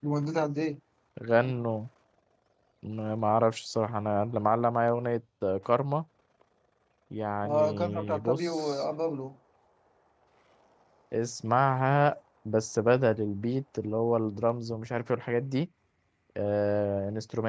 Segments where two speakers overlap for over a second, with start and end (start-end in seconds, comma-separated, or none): 7.4-8.8